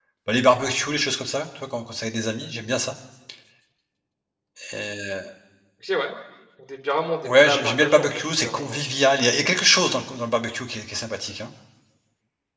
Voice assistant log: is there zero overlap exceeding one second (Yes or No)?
No